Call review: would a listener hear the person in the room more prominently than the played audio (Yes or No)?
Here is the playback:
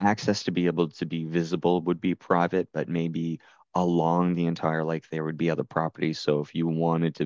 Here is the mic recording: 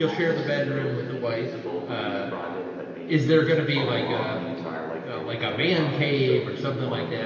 Yes